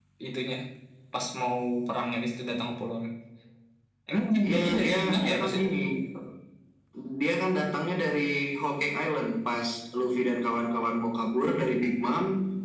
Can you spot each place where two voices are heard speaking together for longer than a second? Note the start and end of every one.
4.4-5.7

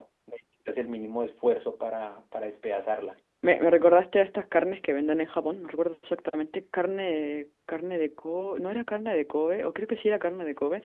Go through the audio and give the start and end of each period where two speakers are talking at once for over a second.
none

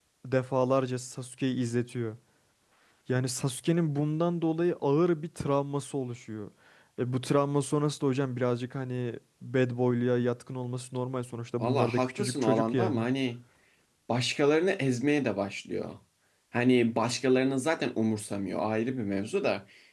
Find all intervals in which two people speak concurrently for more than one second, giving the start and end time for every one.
11.6-13.1

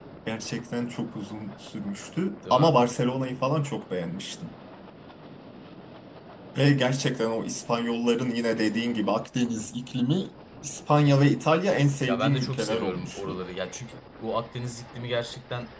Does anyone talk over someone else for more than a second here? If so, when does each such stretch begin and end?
12.1-13.4

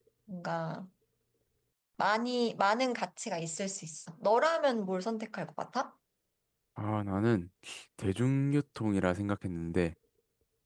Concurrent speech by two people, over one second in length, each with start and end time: none

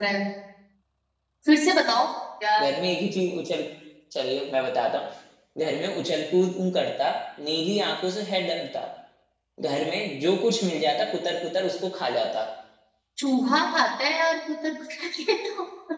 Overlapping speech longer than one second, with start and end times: none

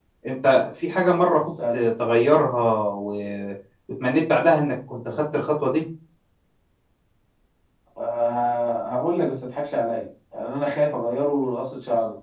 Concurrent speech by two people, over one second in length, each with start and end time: none

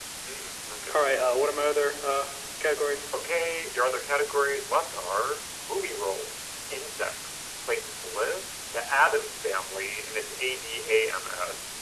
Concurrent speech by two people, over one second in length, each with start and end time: none

